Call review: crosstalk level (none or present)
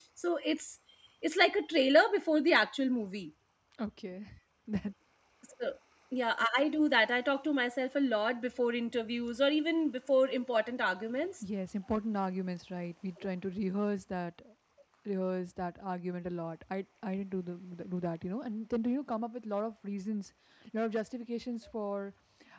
none